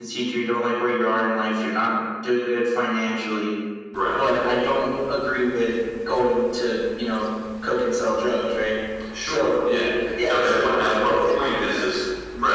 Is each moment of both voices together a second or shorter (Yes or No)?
No